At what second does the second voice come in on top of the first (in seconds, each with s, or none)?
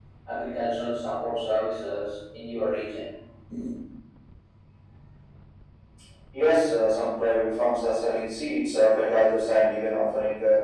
none